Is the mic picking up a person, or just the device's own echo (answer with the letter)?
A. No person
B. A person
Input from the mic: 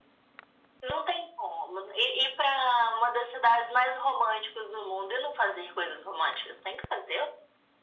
A